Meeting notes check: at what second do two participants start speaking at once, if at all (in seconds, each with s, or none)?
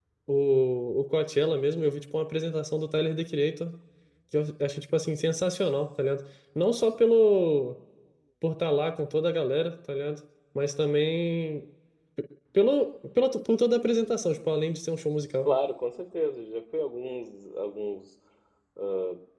none